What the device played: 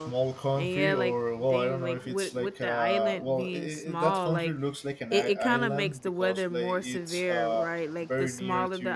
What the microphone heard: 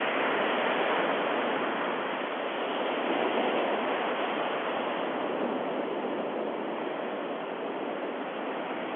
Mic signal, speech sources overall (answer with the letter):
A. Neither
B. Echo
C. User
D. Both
A